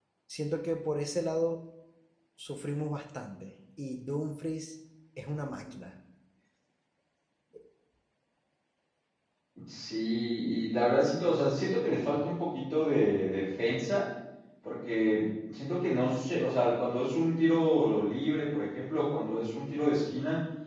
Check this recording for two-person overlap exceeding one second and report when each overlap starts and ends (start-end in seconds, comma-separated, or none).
none